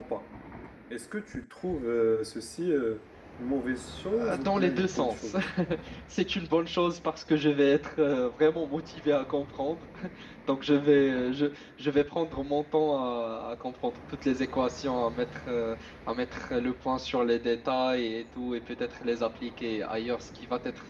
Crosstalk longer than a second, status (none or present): present